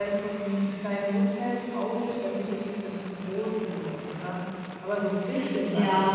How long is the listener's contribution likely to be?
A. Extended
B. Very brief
A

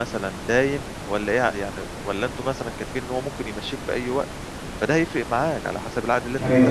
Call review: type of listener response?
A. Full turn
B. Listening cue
A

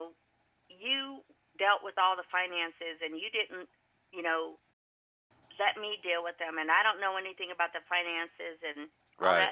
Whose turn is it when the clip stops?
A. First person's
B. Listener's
A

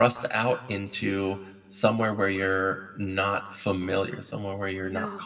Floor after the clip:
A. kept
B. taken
A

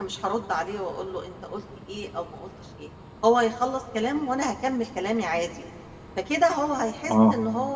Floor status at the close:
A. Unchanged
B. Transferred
A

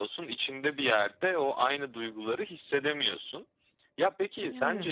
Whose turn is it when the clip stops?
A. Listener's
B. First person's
B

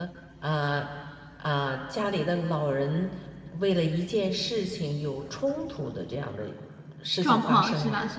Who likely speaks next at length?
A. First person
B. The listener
B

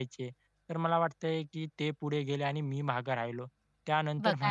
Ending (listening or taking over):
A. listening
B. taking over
A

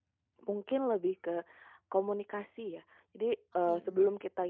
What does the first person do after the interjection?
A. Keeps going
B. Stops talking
A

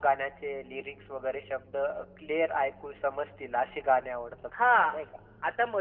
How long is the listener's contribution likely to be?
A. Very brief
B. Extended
B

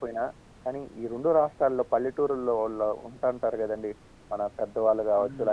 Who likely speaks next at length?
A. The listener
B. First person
B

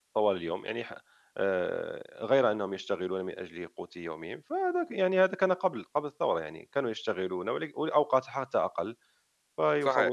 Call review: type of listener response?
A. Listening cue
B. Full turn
A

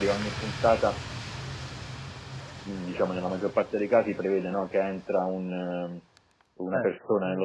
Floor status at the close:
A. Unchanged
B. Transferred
A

